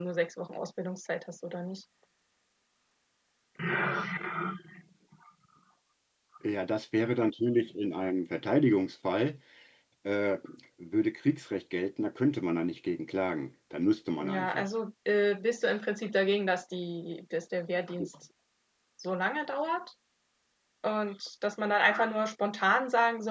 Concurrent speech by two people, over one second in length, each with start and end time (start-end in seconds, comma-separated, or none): none